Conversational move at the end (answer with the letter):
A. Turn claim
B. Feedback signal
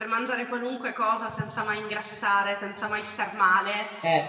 B